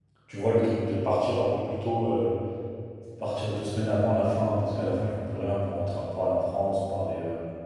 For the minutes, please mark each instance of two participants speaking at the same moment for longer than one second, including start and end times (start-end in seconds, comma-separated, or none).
none